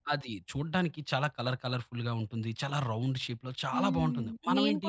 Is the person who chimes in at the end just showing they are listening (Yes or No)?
No